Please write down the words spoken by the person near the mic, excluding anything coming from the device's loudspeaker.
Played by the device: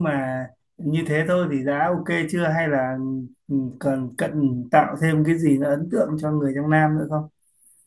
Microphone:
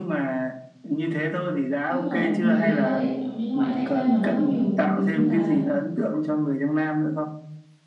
Đúng rồi, mình sẽ có thể chọn những loại trái cây mà nó có nhiều mùi như là

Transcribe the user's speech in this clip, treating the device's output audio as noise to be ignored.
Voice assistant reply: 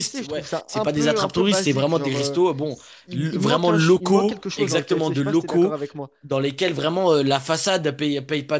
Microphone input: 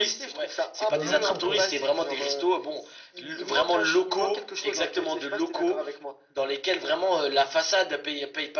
De locaux, quoi.

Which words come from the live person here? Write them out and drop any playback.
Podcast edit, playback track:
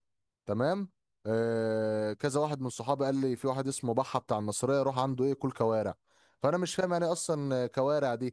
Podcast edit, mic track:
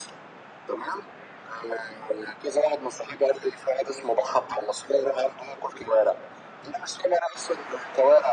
none

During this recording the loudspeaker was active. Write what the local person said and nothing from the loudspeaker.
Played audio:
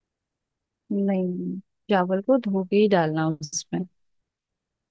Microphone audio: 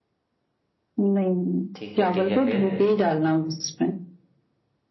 ठीक है ठीक है फिर

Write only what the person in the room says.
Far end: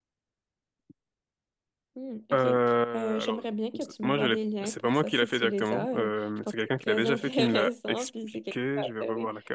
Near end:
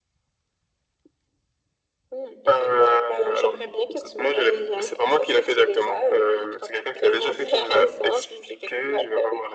none

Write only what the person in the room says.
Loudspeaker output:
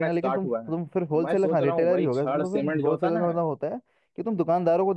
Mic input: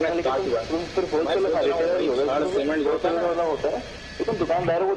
none

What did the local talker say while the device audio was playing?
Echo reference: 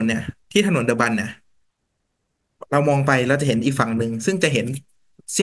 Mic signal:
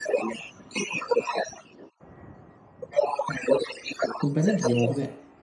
คุณไปตั้งแต่กี่โมงครับเนี่ย

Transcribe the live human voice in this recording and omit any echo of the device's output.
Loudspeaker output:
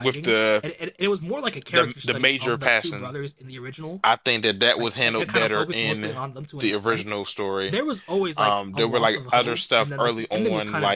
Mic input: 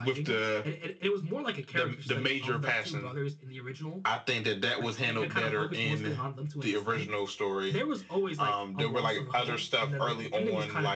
none

